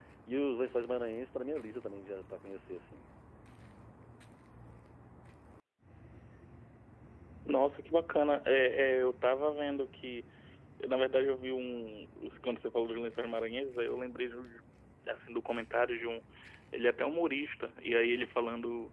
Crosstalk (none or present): none